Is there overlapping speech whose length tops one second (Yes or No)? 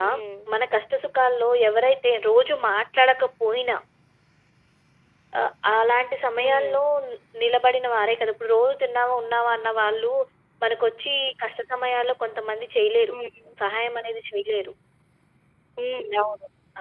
No